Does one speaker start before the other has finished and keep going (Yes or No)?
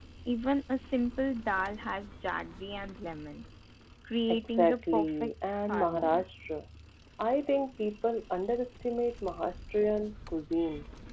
Yes